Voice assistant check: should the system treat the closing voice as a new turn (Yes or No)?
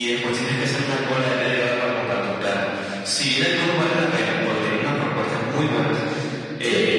No